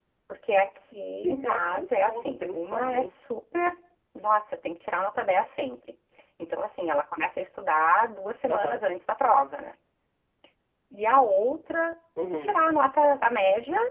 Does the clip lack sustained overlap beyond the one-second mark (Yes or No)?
No